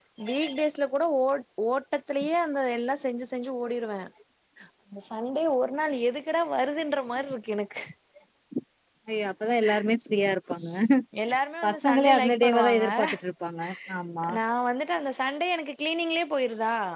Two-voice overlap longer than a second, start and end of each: 11.7-13.1

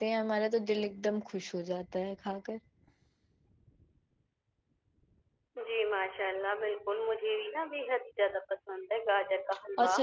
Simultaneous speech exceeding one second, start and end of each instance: none

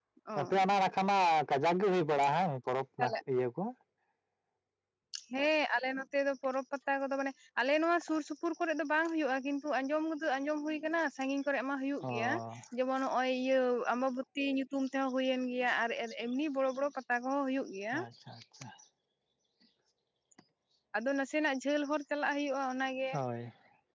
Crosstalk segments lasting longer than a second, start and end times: none

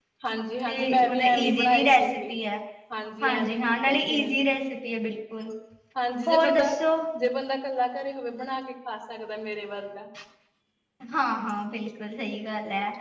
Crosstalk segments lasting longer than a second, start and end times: 0.7-2.0, 3.2-4.4

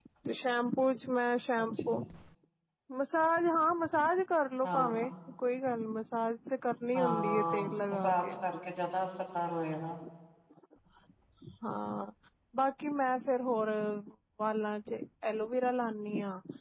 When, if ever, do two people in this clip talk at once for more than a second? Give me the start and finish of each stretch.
7.0-8.3

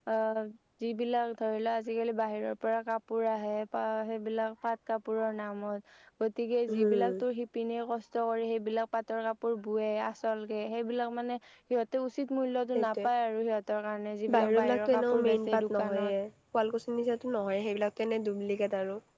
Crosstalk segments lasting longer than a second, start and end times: 14.4-16.1

